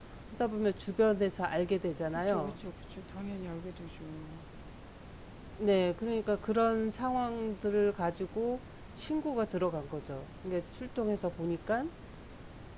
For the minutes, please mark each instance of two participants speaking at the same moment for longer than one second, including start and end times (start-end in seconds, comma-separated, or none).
none